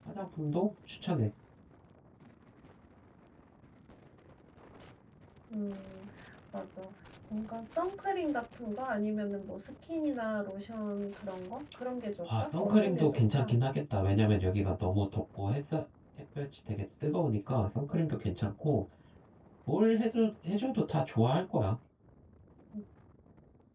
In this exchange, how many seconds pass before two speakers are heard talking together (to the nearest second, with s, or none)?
12 s